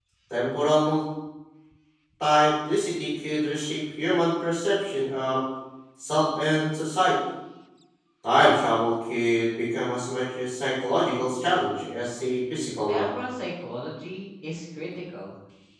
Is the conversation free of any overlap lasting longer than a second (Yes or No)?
Yes